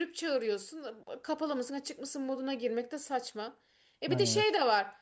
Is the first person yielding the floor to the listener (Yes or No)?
No